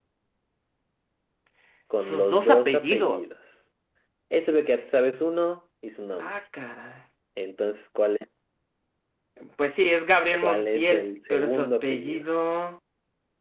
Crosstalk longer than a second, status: present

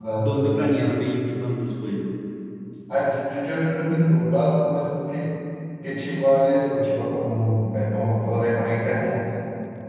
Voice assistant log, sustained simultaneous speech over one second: none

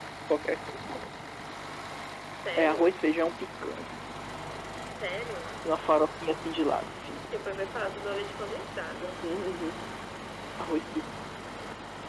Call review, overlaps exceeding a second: none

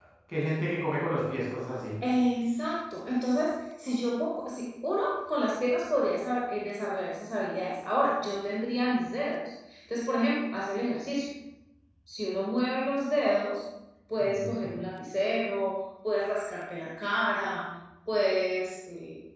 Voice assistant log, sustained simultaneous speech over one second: none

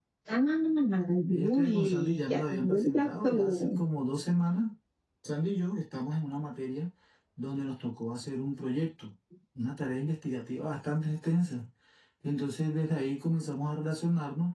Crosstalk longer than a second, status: present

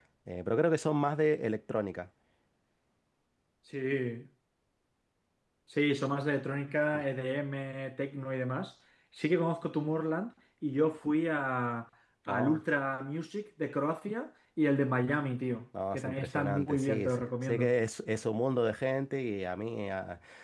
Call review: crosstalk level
present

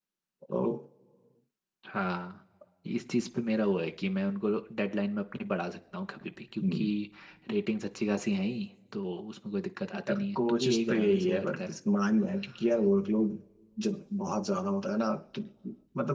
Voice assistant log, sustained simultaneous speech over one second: present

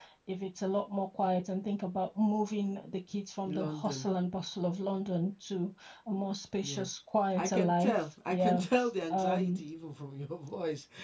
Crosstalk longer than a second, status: present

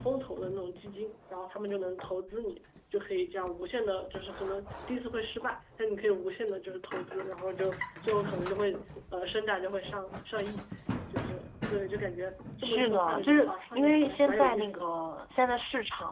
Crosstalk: present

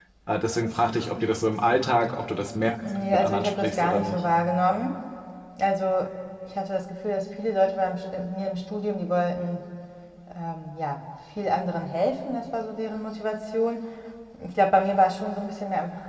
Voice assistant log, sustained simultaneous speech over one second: present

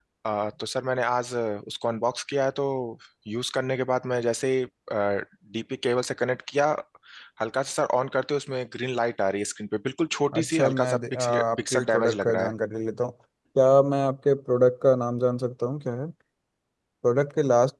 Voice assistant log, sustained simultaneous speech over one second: present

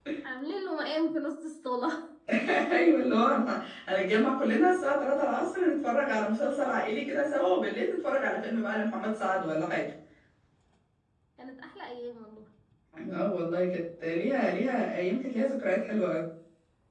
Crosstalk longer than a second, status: none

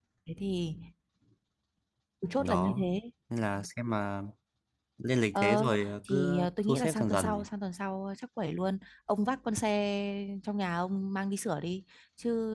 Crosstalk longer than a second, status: present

